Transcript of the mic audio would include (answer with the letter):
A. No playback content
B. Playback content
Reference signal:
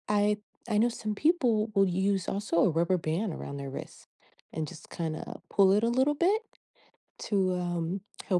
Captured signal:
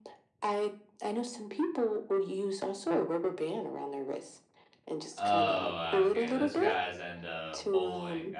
B